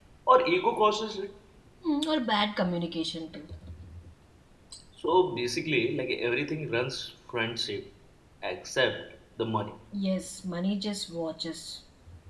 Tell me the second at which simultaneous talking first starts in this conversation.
none

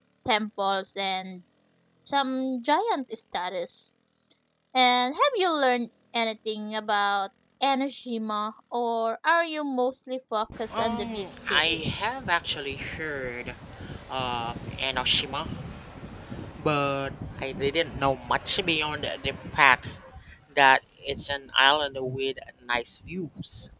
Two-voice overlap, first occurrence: 11 s

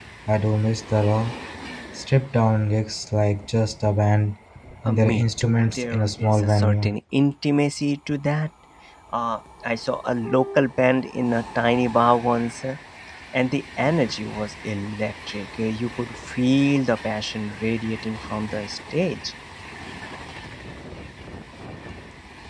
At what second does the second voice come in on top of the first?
5 s

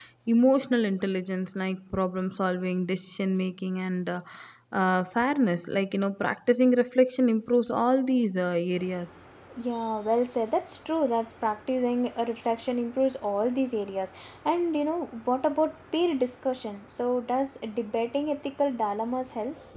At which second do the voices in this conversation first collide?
none

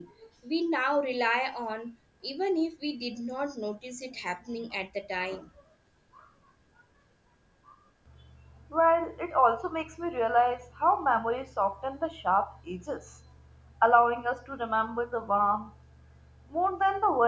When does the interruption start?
none

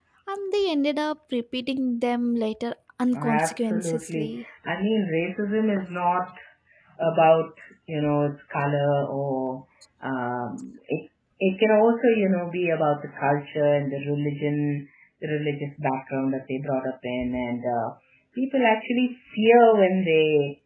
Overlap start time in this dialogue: 3 s

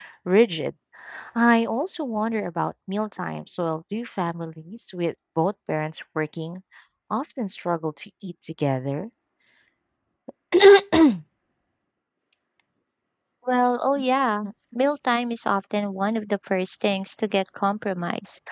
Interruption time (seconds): none

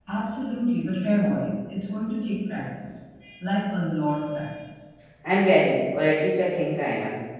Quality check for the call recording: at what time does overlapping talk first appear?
none

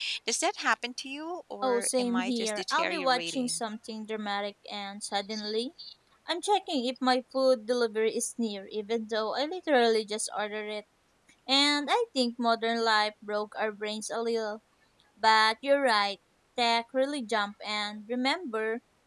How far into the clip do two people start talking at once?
2 s

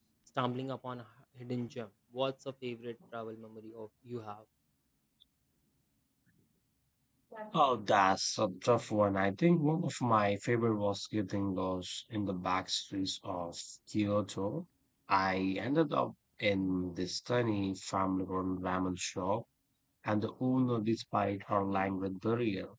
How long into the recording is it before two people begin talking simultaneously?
none

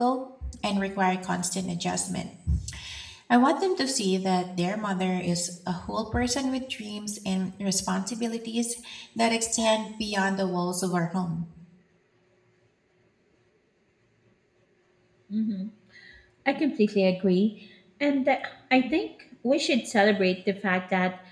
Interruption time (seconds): none

